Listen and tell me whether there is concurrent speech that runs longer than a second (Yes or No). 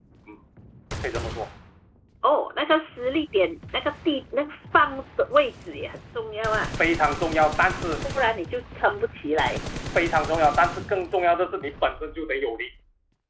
No